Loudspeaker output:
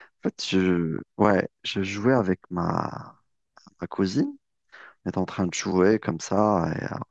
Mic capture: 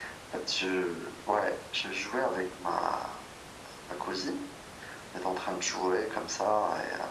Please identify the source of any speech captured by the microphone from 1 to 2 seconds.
echo only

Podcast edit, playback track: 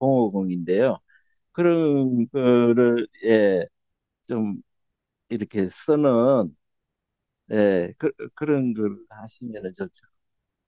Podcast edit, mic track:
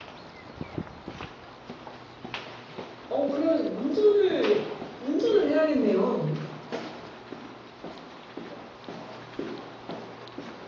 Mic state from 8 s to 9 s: neither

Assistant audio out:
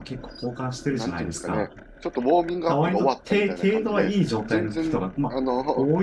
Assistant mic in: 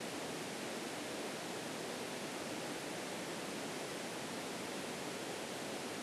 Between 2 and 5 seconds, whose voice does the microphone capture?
neither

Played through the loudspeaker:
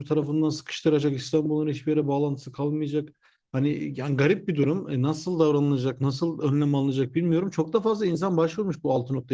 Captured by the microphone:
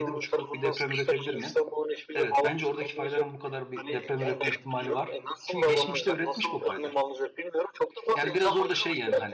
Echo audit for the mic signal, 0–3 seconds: both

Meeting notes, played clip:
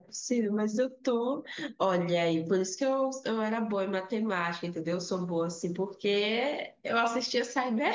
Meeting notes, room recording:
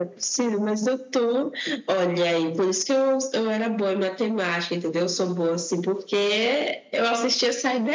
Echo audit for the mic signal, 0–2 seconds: echo only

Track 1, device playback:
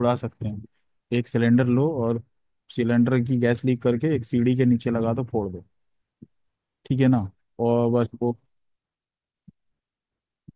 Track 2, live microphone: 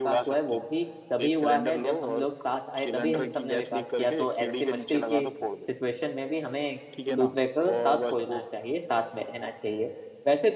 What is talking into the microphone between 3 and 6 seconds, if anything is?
both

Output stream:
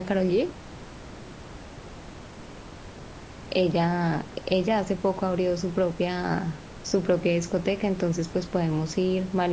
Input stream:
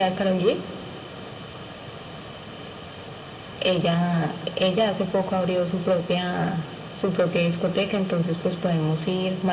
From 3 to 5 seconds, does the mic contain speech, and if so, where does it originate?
echo only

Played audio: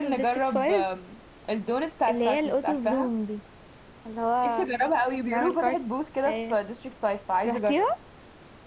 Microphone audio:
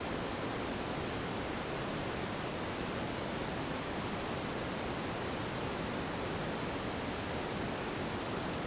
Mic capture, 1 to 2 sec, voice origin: neither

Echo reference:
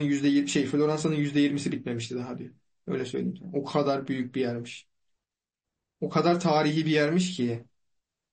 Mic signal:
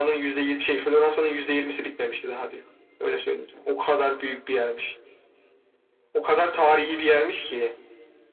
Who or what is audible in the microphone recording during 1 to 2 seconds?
echo only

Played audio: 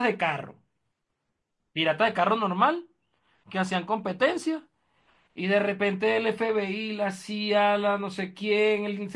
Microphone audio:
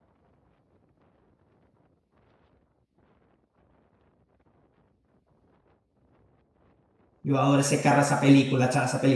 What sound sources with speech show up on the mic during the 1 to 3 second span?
neither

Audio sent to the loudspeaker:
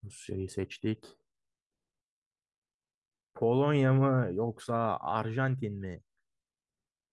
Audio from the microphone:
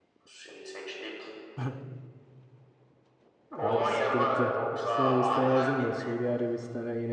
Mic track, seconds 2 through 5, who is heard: both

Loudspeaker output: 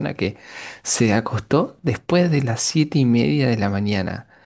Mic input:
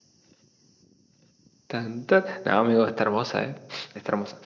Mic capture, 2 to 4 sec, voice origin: user only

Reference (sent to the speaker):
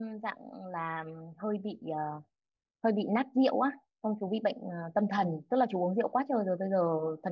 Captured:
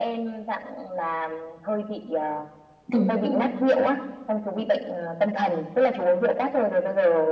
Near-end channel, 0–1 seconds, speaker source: echo only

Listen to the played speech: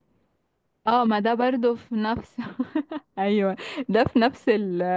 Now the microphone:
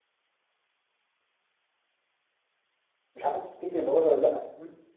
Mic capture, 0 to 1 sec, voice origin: neither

